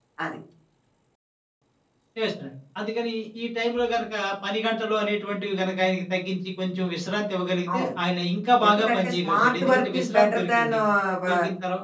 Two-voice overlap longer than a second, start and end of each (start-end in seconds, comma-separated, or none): 8.7-10.7